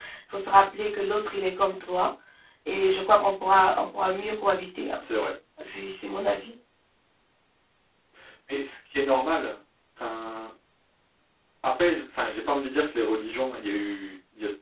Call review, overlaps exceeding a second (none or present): none